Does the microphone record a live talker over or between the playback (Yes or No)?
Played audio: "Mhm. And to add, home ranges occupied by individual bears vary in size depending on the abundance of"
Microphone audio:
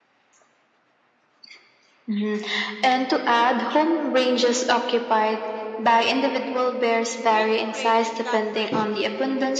Yes